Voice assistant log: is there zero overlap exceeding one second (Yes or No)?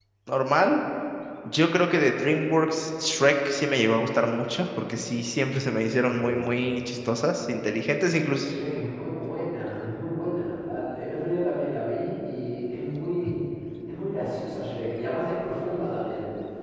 Yes